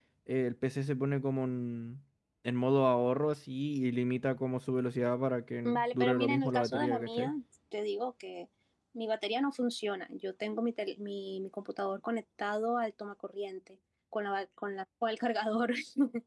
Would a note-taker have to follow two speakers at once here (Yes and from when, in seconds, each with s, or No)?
Yes, from 5.6 s